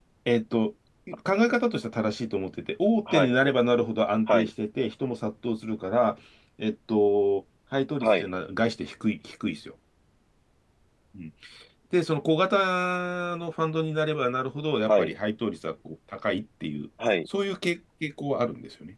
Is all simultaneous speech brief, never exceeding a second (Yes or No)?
Yes